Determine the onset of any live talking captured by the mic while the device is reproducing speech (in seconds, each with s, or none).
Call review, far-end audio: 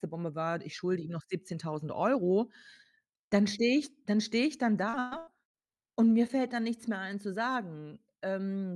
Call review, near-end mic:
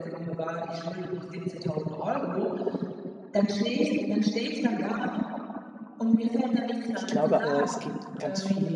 6.9 s